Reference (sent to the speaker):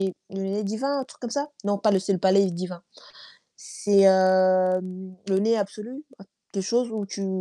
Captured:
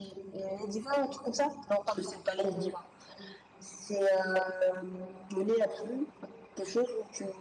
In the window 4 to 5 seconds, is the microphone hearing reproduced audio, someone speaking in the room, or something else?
echo only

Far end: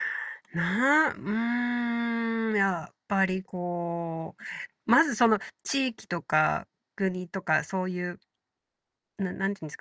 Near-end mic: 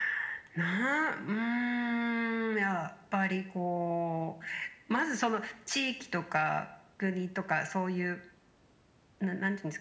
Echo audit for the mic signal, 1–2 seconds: echo only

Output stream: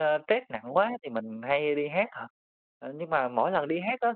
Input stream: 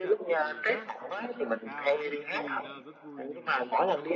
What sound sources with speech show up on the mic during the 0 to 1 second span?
both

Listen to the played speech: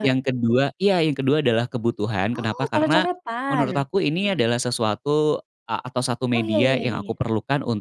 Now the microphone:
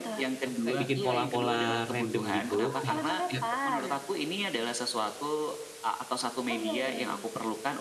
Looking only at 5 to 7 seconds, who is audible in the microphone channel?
echo only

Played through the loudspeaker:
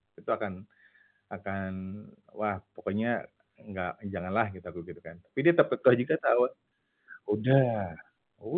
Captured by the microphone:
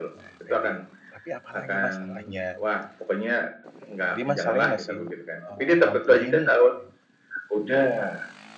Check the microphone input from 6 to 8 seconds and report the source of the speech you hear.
both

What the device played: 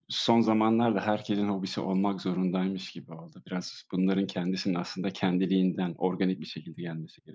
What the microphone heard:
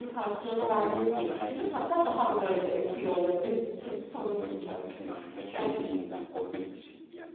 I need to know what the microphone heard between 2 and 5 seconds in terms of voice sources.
both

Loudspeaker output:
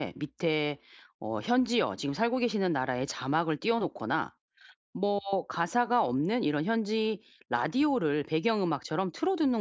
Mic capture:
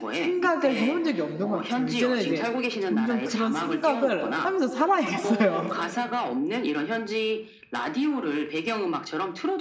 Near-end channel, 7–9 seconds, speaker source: echo only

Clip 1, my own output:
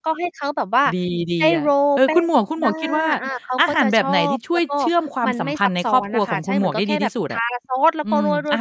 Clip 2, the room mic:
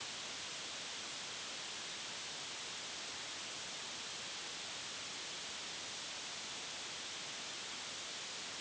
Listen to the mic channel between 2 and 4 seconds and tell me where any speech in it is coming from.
neither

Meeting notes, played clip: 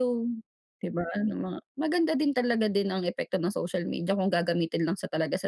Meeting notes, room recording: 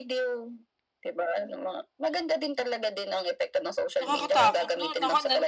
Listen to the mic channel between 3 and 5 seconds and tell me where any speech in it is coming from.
both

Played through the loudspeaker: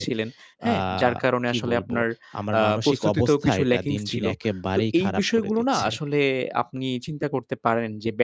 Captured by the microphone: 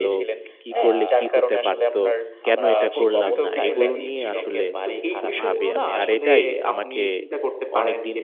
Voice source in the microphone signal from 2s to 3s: both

